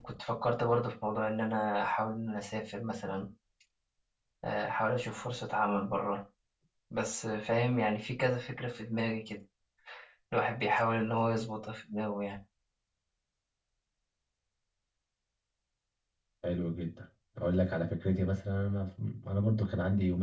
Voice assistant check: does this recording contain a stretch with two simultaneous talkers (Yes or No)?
No